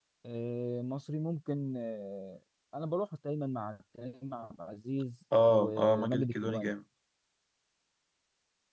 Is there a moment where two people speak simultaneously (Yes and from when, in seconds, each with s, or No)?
Yes, from 5.3 s